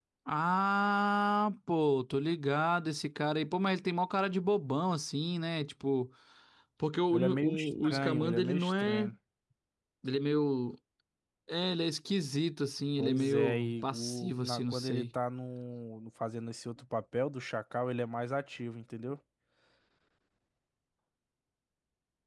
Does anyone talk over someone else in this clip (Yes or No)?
Yes